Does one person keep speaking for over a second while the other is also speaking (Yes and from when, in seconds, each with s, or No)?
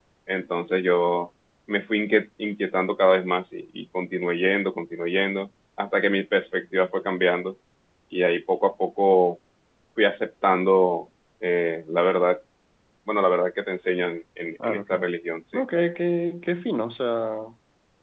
No